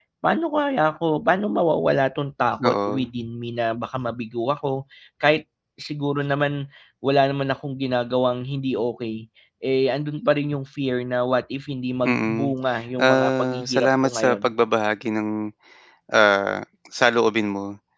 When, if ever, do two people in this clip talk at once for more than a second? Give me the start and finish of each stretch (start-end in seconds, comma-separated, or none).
13.0-14.4